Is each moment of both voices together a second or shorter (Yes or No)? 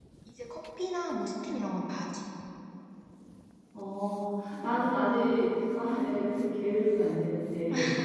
Yes